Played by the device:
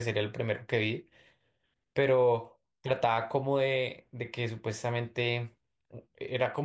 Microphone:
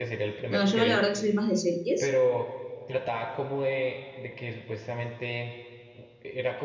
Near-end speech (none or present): present